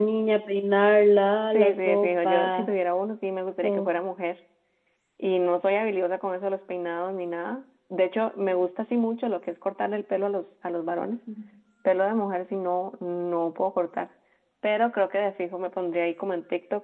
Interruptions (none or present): present